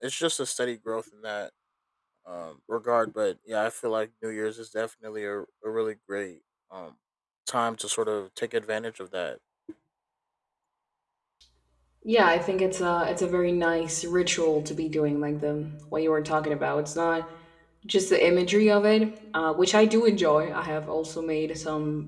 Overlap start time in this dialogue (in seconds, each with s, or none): none